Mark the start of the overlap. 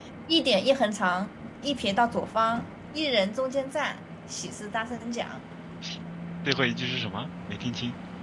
none

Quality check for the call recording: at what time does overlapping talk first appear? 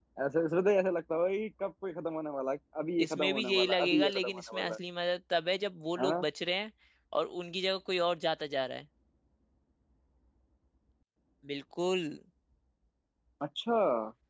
3.0 s

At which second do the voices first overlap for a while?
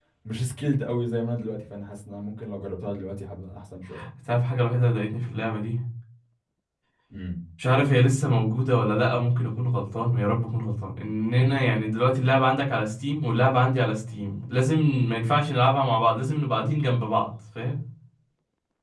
none

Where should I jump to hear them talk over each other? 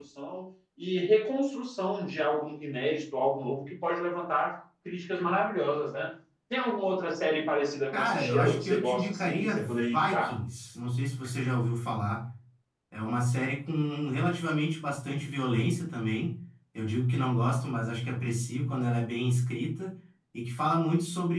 7.9 s

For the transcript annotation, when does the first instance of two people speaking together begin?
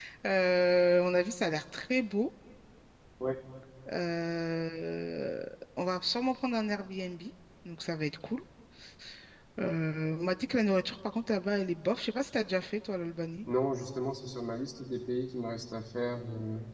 none

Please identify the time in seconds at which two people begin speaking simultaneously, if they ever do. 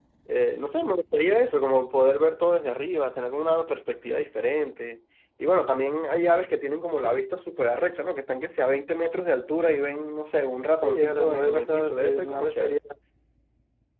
10.8 s

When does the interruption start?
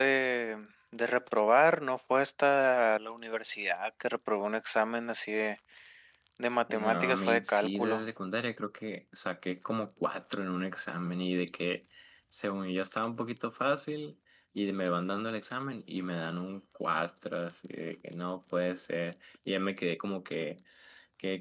6.7 s

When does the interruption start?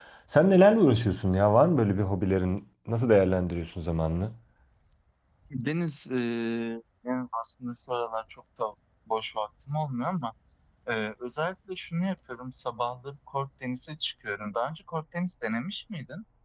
none

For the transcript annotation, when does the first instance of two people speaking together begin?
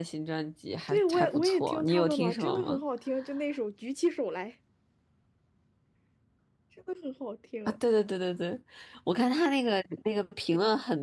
0.9 s

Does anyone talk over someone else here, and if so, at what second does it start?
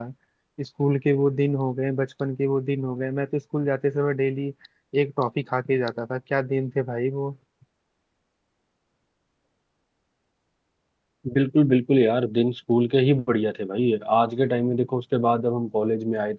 none

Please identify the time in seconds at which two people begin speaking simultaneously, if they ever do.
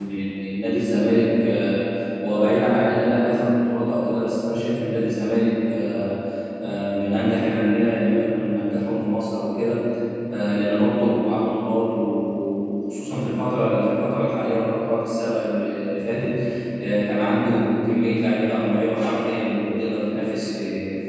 none

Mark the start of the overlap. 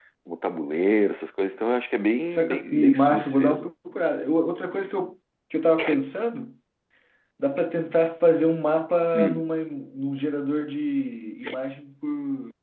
2.3 s

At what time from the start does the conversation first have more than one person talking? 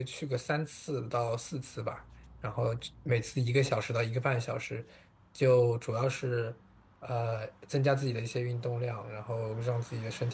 none

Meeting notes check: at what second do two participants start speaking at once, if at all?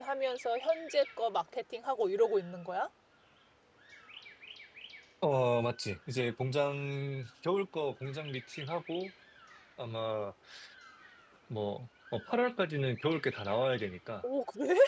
none

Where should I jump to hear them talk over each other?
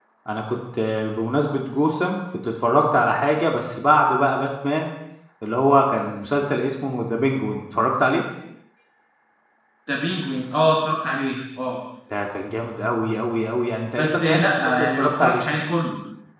14.0 s

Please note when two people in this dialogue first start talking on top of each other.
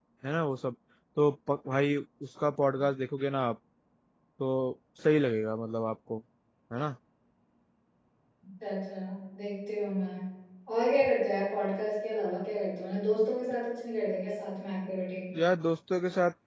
none

